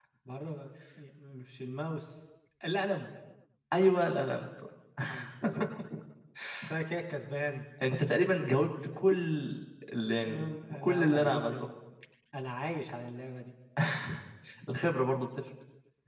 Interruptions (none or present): present